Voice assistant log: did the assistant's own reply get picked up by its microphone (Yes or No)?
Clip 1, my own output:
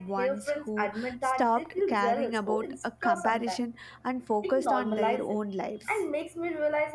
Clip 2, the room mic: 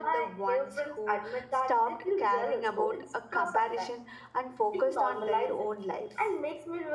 Yes